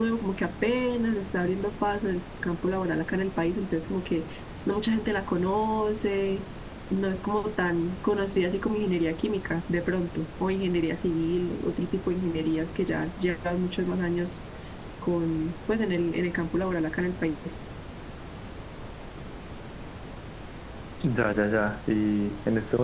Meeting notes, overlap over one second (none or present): none